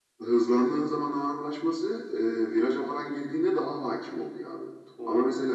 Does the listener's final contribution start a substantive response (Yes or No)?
No